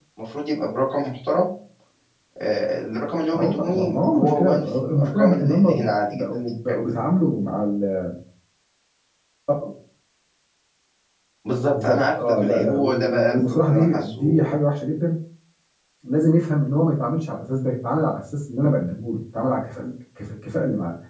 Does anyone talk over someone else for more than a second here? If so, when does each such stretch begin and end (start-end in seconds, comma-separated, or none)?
3.3-6.4, 11.7-14.4